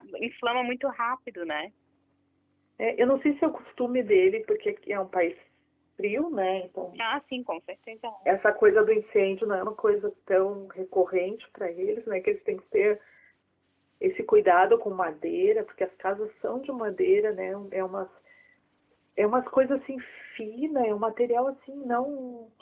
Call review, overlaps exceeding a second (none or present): none